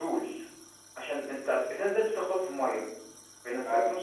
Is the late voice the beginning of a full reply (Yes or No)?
No